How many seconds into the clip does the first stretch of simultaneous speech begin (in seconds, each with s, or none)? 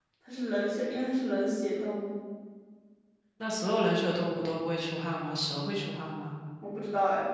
none